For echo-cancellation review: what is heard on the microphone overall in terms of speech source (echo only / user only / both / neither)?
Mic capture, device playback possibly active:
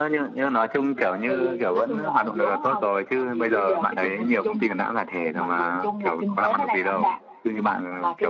echo only